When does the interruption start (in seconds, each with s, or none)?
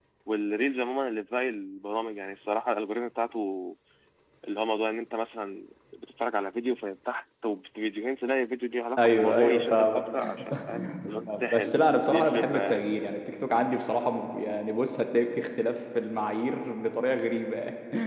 9.0 s